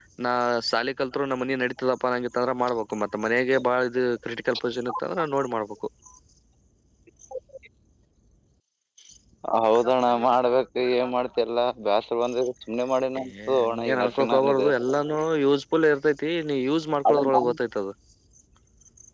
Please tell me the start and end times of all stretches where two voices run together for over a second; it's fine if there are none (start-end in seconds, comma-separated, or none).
13.2-14.7